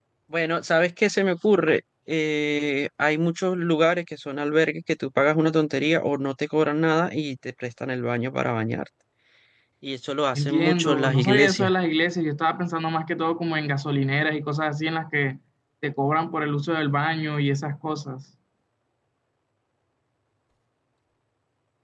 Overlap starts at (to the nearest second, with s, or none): 10 s